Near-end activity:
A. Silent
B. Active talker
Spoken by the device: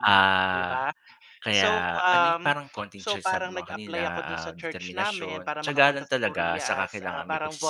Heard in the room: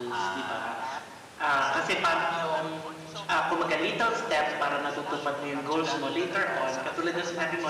B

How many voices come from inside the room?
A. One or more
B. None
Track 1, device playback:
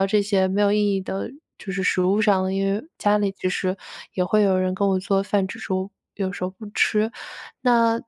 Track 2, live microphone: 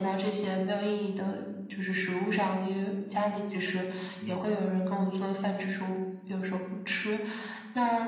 A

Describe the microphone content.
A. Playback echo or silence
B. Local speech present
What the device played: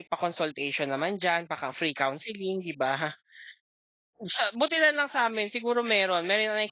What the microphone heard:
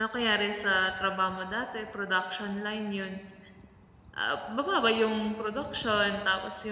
B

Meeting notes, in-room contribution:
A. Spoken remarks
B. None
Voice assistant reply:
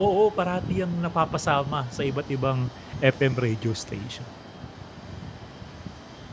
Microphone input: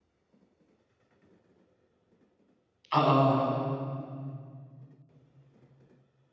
A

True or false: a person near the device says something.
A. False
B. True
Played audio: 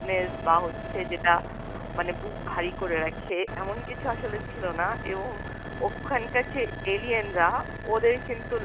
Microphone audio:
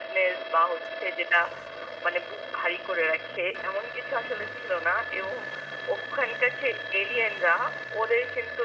A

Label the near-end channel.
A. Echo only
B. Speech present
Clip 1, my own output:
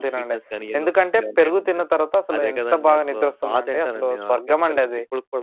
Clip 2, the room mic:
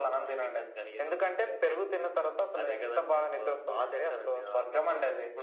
A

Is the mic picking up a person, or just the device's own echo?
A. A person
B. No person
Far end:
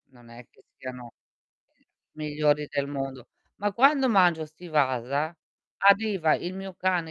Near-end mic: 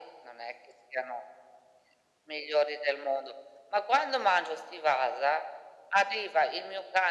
B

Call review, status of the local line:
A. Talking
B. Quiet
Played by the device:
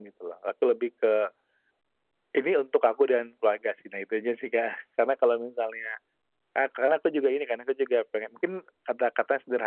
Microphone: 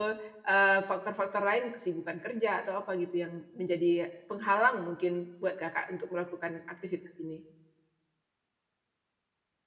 A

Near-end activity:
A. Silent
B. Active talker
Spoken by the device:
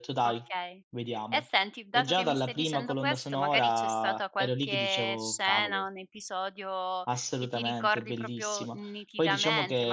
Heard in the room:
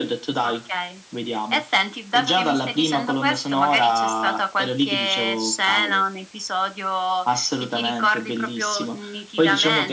A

